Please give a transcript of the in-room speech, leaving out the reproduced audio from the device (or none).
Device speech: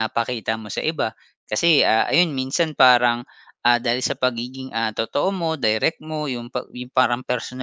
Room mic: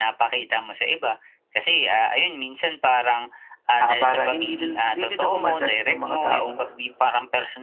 ah, para hindi din hindi din ako ma-judge ng mga taong,